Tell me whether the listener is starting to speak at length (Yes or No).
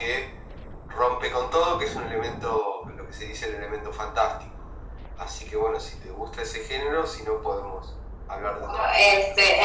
Yes